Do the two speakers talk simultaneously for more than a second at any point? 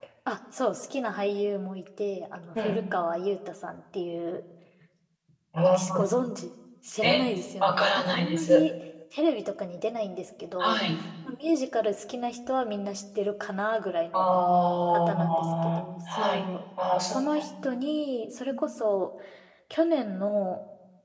Yes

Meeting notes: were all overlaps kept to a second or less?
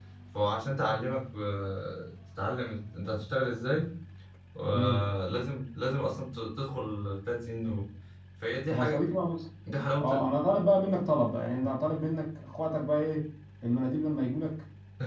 Yes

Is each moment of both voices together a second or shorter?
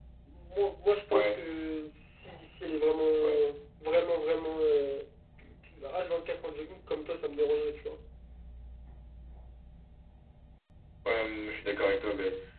Yes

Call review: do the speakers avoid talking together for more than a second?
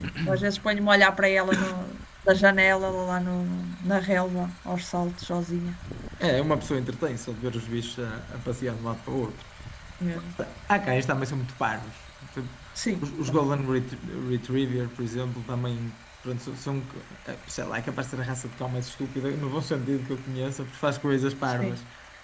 Yes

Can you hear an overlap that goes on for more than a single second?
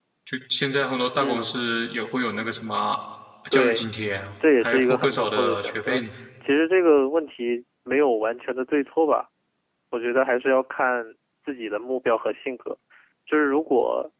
Yes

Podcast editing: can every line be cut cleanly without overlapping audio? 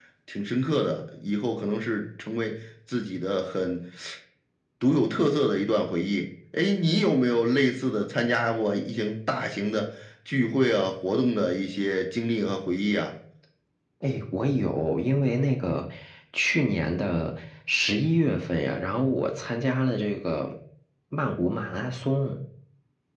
Yes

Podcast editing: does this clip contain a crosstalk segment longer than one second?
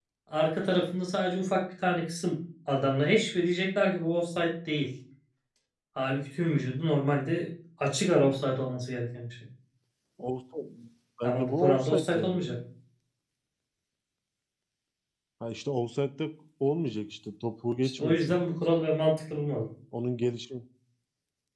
Yes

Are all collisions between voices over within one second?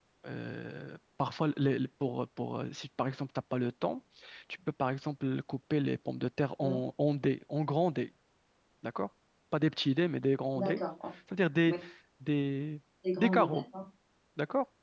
Yes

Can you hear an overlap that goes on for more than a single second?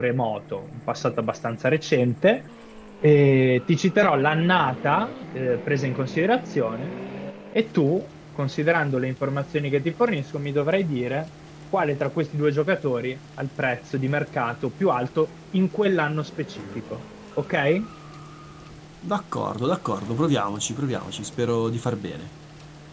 No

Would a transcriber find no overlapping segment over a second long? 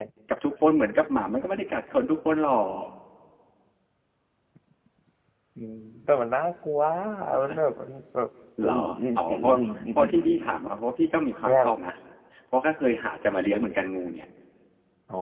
Yes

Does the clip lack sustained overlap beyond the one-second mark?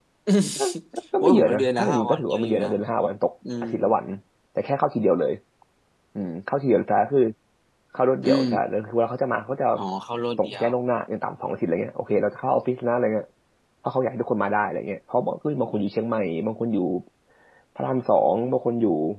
No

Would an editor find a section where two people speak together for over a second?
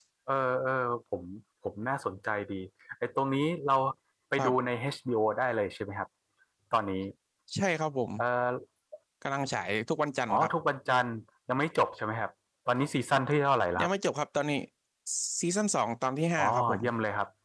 No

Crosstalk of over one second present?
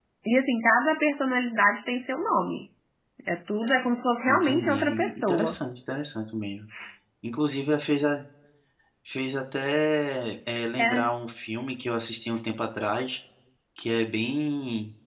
Yes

